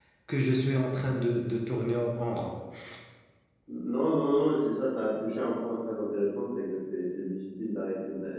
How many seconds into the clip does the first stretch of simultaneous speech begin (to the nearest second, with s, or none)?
none